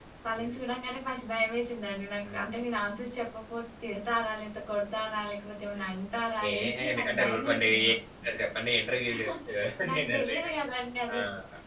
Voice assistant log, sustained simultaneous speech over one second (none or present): present